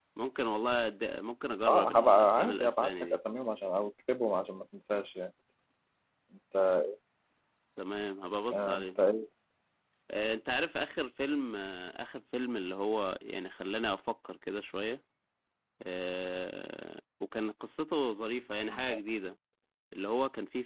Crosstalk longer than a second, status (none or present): present